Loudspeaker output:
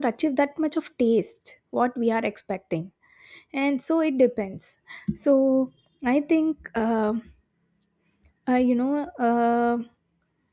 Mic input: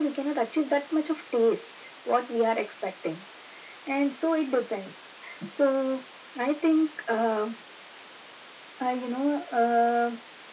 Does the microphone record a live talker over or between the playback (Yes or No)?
No